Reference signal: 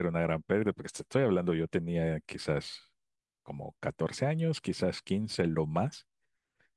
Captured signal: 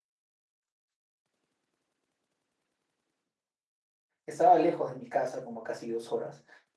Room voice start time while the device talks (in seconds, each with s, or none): 4.2 s